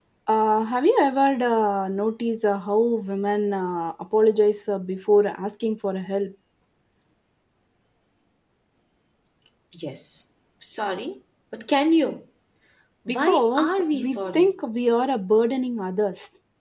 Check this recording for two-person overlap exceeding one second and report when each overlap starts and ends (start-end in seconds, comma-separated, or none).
13.1-14.5